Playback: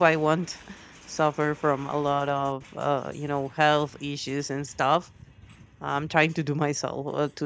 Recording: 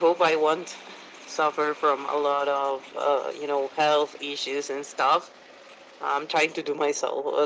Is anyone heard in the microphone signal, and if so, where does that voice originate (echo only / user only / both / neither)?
echo only